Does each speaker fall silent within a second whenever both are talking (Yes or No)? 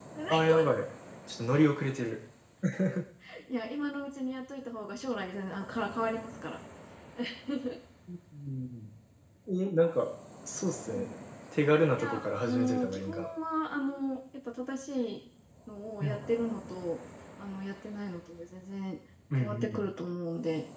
No